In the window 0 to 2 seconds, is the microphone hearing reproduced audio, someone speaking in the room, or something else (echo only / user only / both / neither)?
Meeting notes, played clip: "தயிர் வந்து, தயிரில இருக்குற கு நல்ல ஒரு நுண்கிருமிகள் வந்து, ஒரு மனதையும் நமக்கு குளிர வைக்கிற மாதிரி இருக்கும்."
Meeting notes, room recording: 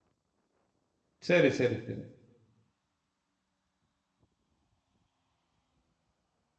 user only